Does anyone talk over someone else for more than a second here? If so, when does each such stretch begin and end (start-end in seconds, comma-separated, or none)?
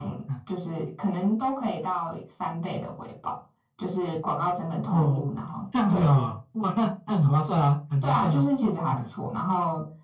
none